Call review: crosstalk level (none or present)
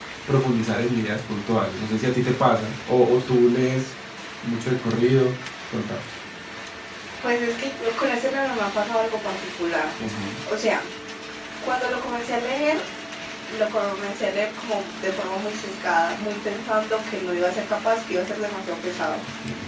none